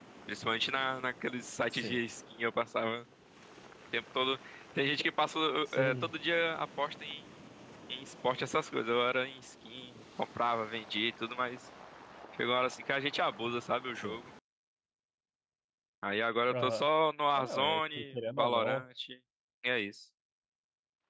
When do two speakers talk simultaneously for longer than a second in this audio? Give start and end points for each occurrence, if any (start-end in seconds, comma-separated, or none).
17.4-18.8